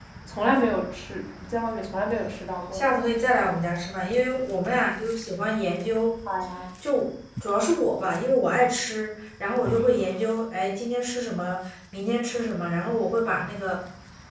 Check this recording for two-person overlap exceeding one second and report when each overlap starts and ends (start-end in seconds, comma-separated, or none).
none